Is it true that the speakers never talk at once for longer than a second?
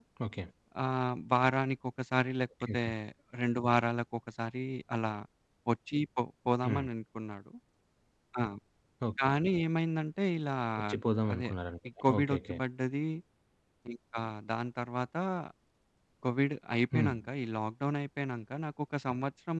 Yes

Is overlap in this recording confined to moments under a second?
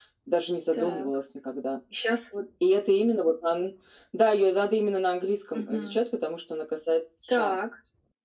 Yes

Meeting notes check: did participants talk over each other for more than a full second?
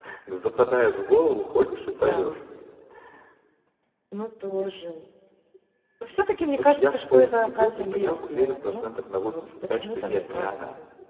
Yes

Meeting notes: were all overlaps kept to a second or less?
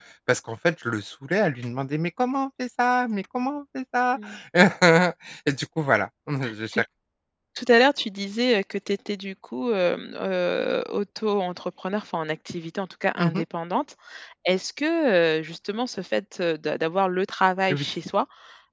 Yes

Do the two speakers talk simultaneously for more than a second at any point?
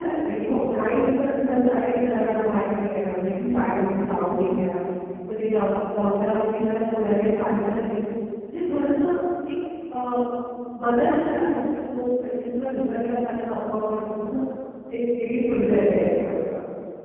No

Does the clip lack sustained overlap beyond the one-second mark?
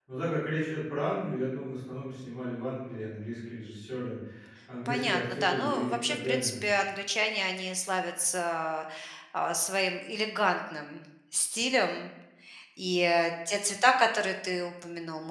No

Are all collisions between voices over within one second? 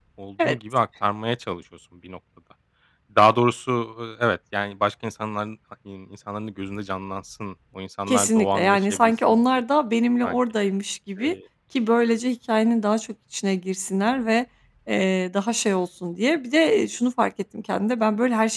No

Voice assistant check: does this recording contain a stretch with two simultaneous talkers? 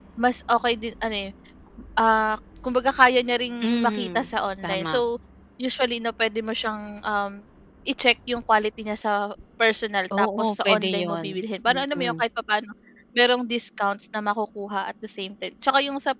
Yes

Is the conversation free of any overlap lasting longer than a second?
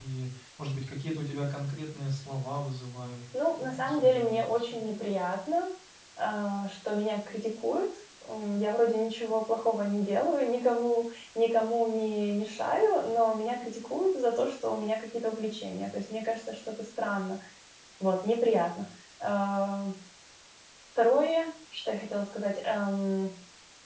No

